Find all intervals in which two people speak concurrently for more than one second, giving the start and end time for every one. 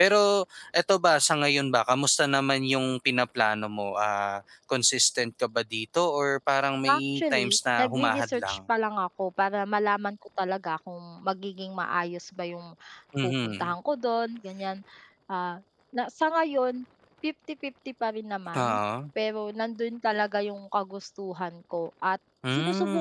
6.9-8.6

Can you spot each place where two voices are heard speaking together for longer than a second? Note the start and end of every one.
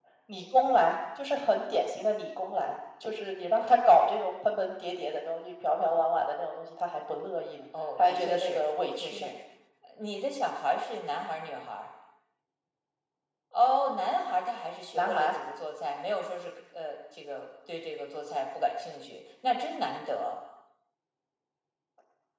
8.0-9.2

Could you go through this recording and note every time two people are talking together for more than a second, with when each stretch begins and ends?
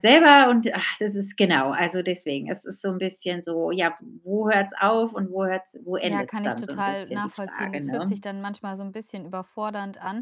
6.0-8.2

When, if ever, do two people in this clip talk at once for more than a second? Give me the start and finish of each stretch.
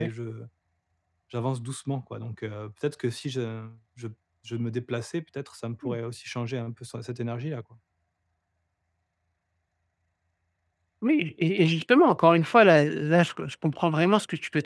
none

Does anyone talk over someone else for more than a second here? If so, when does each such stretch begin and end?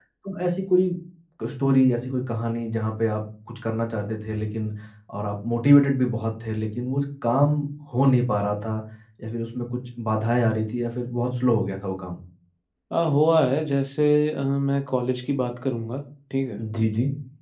none

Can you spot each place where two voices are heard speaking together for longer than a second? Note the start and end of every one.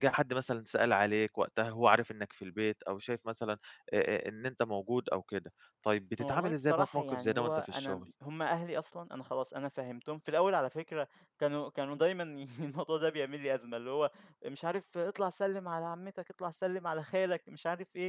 6.2-8.0

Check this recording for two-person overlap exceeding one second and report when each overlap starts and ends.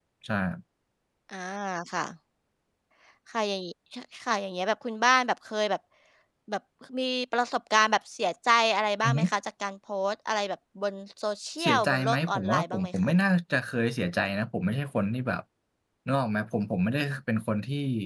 11.6-13.1

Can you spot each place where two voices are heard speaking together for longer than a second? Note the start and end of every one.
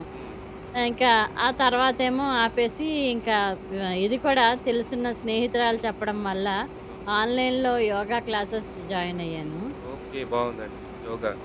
none

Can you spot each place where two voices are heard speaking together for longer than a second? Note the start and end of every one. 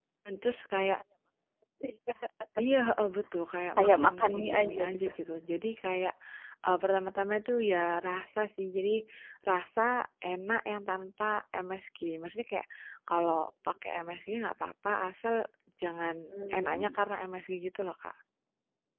3.8-5.1

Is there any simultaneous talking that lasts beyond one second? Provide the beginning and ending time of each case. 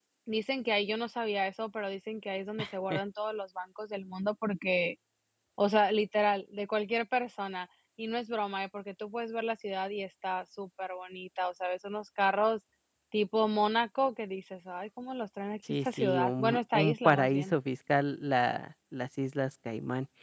15.8-17.5

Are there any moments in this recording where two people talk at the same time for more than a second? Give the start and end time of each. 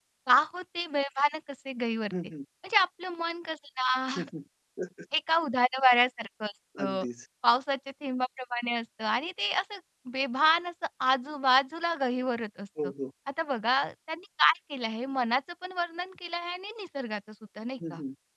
none

